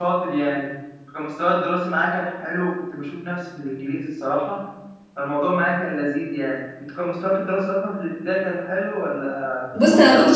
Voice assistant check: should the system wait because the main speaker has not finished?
No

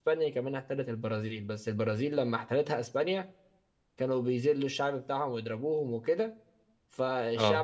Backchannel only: Yes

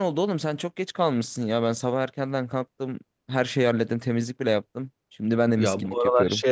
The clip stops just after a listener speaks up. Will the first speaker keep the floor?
No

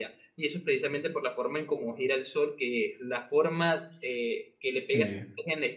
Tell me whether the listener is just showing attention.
Yes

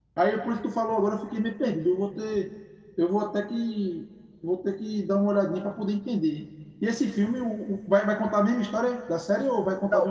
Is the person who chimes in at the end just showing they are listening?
No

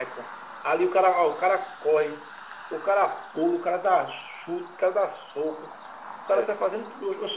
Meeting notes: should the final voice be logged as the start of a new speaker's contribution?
No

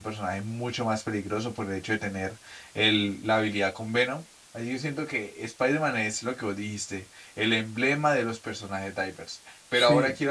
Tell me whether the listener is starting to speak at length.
No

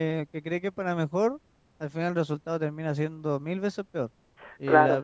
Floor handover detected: No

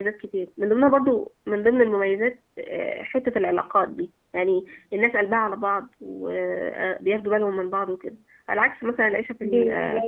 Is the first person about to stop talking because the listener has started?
No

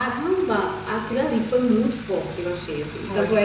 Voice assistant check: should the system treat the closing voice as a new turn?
No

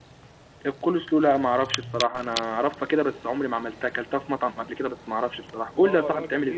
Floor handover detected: Yes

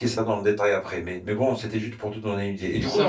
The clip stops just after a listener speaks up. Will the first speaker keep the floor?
Yes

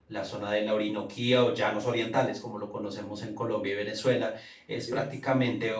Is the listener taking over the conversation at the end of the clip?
No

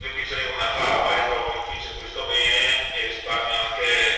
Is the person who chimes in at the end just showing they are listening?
No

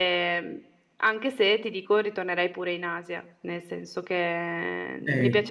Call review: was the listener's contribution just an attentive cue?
No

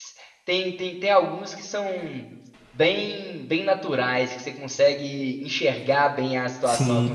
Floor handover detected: No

